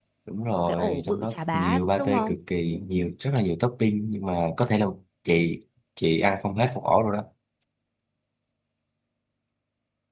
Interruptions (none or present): present